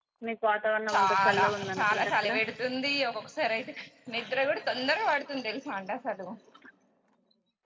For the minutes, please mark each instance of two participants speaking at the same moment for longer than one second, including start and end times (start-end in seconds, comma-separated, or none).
0.9-2.3